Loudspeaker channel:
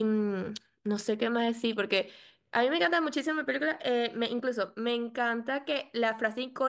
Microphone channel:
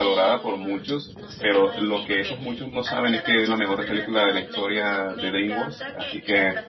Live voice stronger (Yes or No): Yes